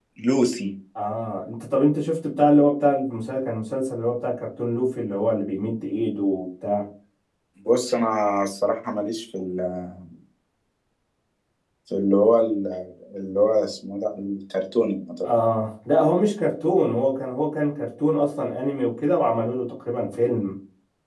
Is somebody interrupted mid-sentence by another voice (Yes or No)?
No